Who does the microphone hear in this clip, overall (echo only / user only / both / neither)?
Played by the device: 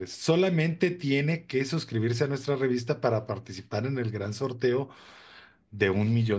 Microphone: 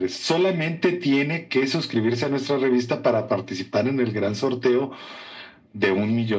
echo only